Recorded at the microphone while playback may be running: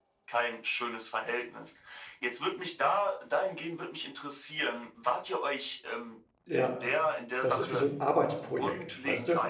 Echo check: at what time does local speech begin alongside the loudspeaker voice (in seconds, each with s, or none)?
6.5 s